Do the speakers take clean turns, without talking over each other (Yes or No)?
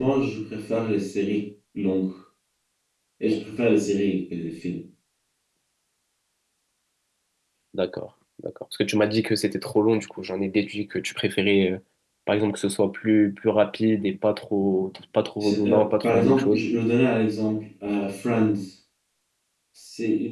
No